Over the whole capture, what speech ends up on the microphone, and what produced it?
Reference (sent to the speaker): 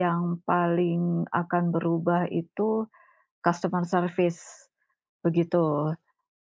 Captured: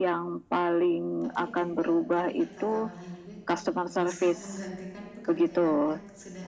both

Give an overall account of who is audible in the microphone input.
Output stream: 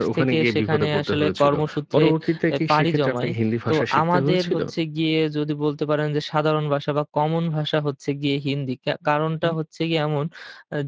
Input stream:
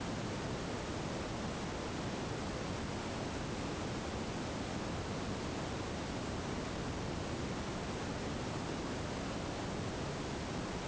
neither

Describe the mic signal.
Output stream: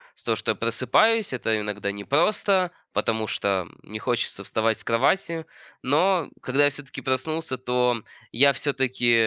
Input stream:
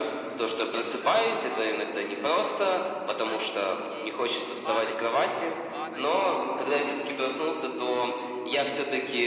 both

